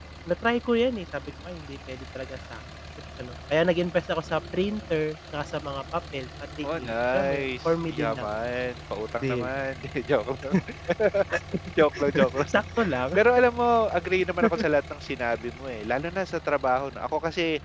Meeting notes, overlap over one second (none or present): present